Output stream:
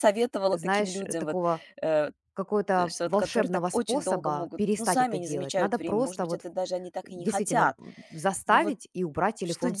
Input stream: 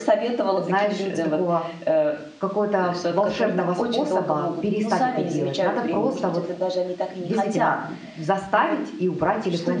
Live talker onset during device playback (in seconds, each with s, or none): none